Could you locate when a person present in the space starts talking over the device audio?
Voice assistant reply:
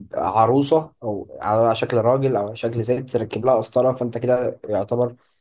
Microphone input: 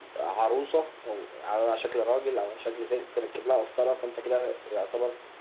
none

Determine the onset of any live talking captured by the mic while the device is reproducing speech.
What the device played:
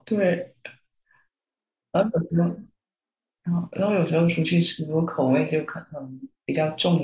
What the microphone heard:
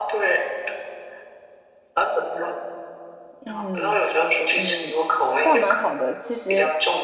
3 s

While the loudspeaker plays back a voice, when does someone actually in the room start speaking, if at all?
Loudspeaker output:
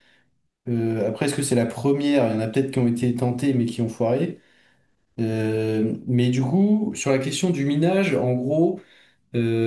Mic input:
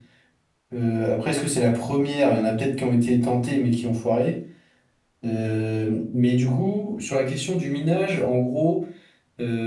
none

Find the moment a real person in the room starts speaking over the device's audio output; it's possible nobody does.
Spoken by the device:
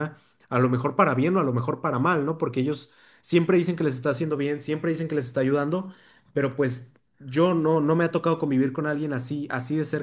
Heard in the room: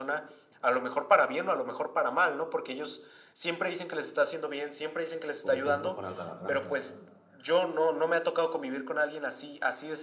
5 s

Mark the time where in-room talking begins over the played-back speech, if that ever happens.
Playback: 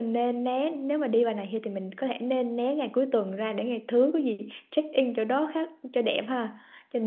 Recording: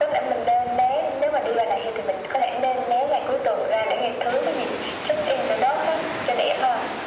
none

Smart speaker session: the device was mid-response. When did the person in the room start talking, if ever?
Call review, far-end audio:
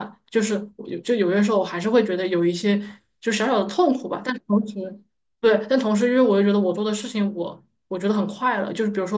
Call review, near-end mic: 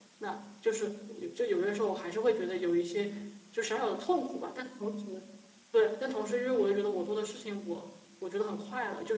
none

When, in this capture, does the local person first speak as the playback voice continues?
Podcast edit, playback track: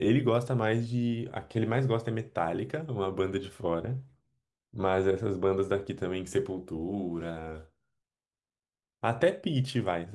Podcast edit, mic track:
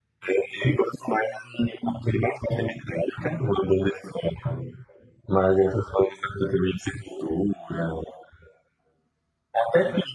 none

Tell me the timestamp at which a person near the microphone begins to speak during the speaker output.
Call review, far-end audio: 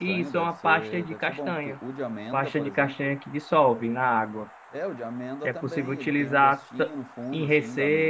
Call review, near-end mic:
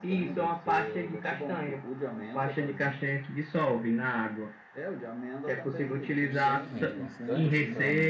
6 s

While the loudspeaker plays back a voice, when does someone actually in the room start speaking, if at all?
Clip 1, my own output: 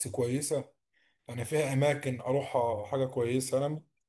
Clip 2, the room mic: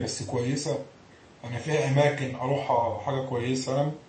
none

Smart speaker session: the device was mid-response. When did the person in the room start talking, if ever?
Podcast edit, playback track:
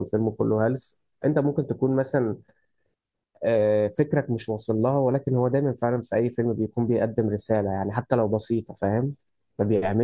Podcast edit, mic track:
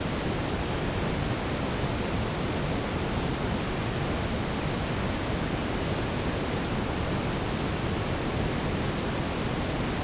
none

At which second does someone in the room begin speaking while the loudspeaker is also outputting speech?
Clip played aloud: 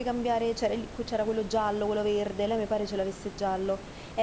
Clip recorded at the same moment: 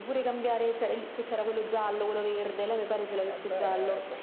3 s

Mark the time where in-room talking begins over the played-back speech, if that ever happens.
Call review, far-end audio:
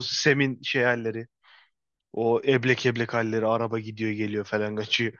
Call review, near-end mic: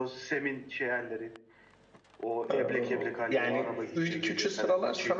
3 s

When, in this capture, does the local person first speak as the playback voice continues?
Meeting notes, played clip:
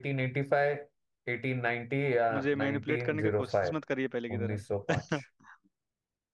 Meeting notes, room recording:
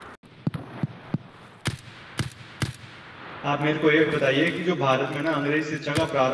3 s

